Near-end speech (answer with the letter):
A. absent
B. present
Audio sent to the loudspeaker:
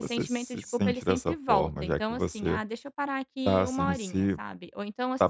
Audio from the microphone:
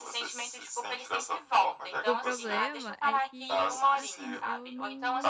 B